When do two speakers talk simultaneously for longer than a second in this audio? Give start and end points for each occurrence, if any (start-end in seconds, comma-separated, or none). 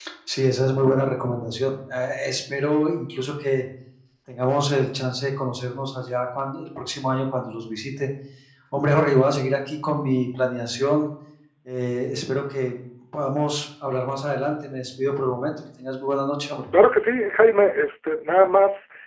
none